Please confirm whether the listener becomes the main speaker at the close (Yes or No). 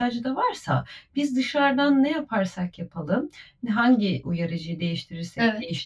No